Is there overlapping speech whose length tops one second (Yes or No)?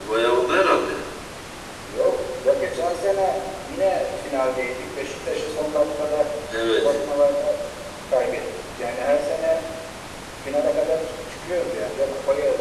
No